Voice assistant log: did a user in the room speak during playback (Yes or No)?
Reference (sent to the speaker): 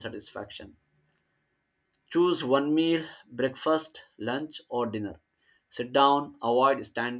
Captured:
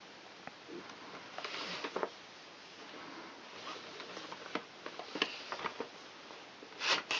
No